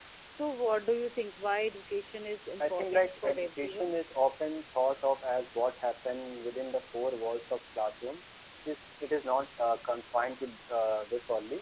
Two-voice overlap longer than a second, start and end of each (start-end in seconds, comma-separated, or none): 2.6-3.9